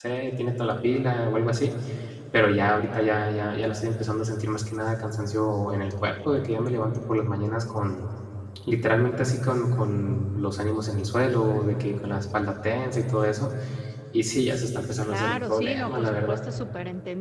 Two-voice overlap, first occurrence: 15.0 s

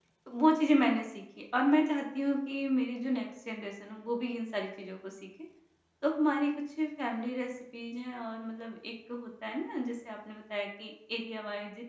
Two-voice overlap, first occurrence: none

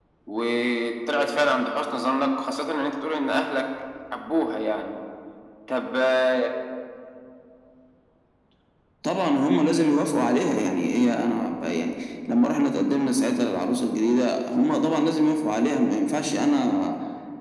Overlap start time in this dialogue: none

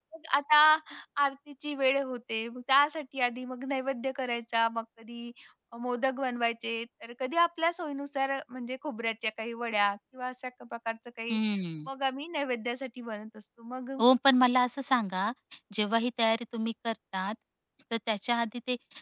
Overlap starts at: none

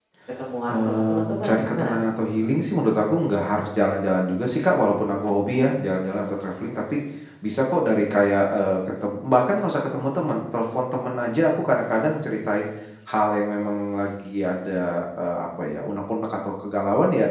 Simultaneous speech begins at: 0.7 s

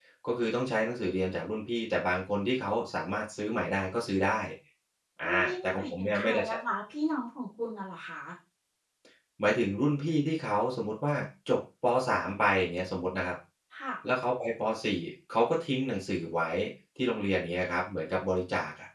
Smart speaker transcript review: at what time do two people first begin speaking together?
5.2 s

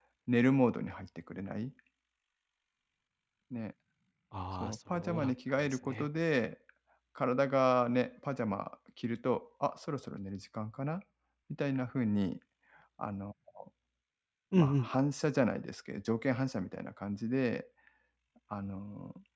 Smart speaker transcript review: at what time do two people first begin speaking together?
4.6 s

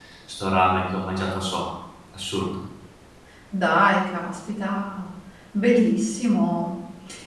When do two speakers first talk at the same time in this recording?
none

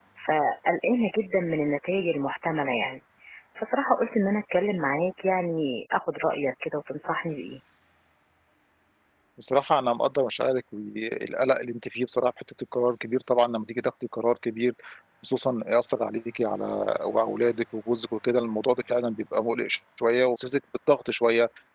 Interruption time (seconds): none

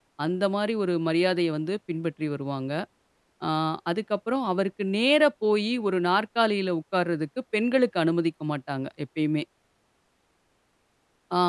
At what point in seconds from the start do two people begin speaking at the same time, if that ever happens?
none

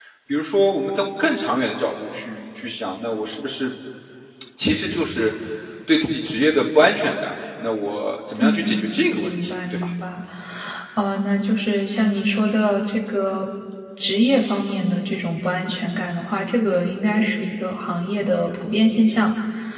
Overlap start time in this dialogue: 8.4 s

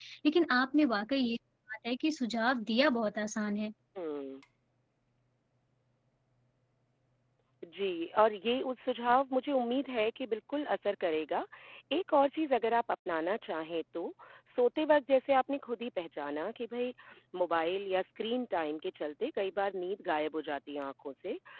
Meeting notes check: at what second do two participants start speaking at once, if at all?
none

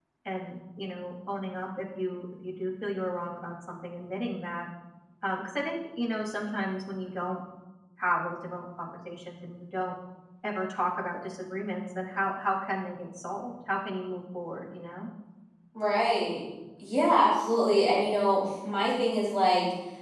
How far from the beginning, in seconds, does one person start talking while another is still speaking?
none

